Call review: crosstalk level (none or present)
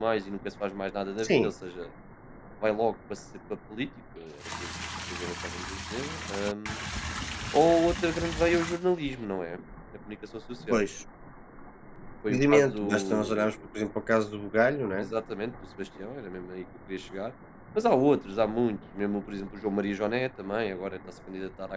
present